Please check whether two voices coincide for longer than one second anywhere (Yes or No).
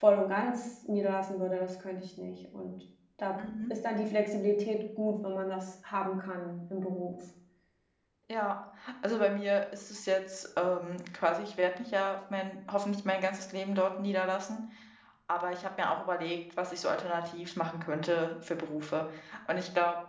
No